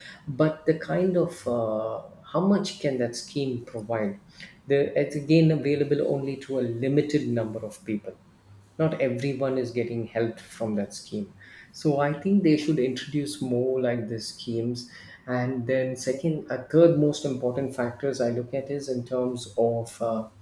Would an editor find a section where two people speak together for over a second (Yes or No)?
No